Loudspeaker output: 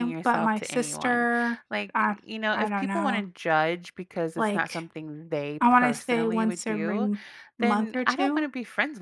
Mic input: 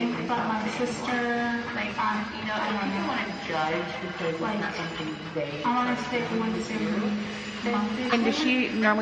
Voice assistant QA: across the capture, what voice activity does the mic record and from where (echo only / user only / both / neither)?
both